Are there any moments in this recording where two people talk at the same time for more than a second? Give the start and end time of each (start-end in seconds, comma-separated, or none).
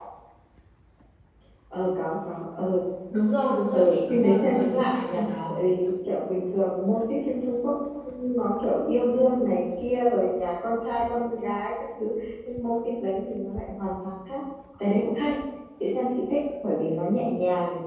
3.7-5.6